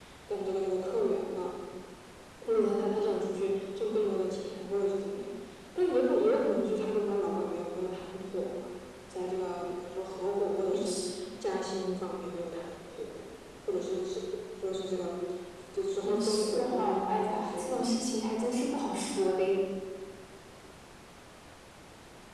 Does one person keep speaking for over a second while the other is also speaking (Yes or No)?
Yes